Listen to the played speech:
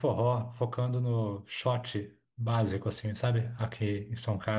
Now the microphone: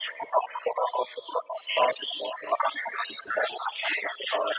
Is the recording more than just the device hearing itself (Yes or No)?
No